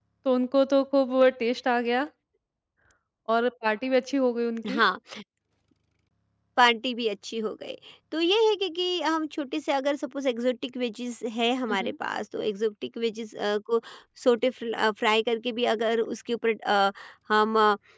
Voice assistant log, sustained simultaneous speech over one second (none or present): none